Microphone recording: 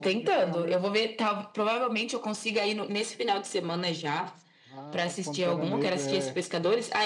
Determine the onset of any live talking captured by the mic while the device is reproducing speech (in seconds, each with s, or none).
none